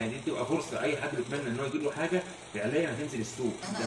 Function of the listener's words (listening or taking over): taking over